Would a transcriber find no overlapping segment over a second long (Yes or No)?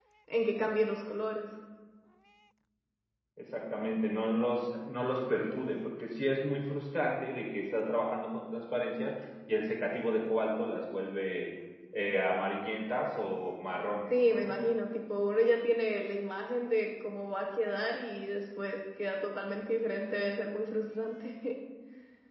Yes